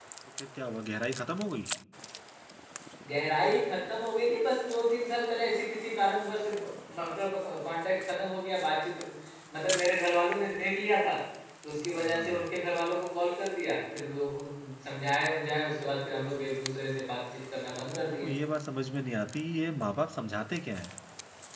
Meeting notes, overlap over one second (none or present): none